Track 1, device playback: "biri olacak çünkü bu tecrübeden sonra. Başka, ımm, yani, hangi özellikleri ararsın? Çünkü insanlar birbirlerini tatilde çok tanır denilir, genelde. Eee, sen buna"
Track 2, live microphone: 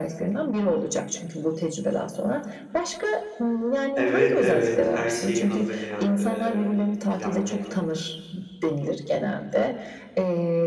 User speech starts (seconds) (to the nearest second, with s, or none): 4 s